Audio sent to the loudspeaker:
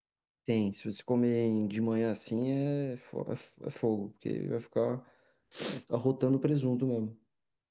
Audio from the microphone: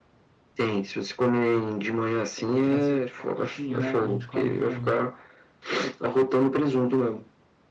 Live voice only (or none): O Que é, seria tipo a coxinha, né, que a gente come do frango.